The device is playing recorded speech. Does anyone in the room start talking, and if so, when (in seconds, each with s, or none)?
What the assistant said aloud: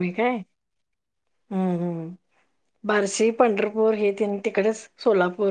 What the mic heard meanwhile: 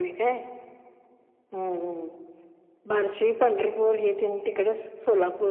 none